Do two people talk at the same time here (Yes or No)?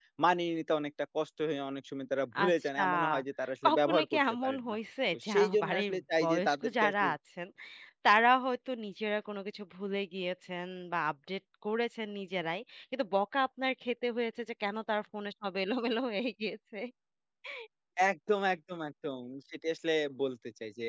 Yes